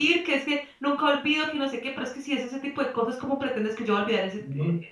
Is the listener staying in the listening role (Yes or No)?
No